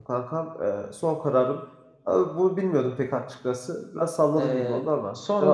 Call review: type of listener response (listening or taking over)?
taking over